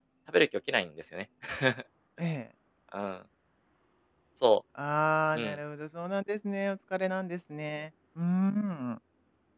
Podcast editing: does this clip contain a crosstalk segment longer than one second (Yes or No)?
No